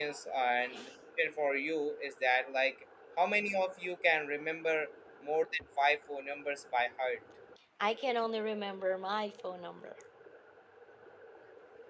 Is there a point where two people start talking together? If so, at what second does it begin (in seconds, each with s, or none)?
none